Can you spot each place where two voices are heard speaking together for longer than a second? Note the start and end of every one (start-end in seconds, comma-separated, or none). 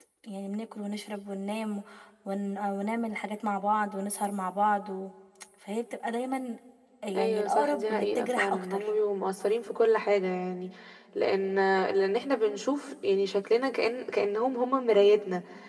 7.2-8.8